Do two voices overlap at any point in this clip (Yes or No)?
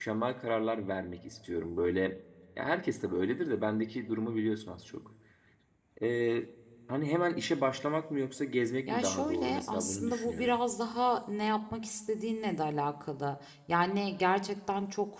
Yes